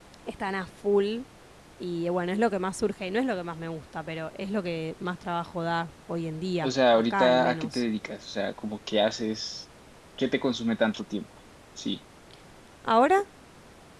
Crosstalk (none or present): present